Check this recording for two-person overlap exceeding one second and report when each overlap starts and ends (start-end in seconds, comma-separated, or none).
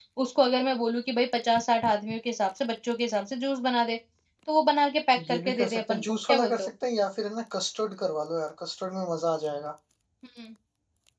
5.3-6.7